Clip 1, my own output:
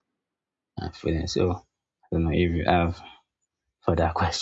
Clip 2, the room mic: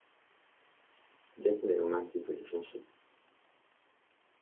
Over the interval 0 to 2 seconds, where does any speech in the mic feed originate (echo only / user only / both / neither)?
user only